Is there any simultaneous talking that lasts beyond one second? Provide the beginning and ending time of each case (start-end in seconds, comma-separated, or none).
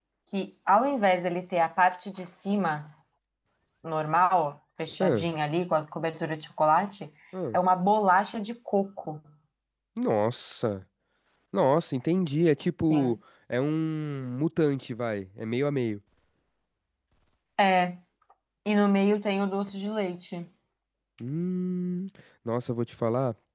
none